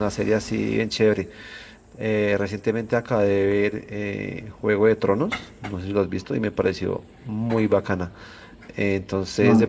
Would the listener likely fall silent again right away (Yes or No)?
Yes